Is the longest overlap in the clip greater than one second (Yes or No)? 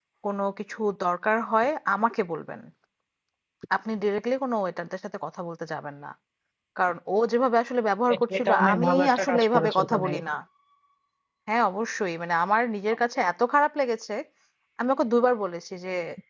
Yes